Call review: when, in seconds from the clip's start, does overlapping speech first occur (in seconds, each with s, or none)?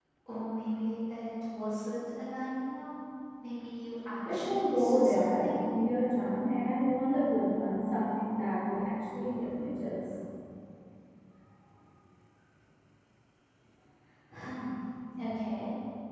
4.2 s